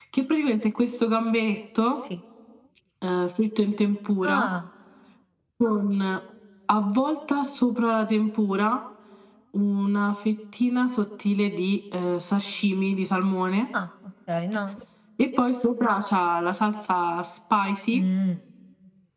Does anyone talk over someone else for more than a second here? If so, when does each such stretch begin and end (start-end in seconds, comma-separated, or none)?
none